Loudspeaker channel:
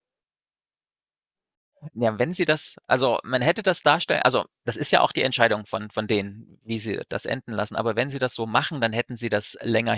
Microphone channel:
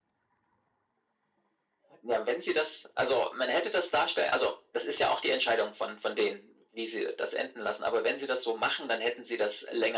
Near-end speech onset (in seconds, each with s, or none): none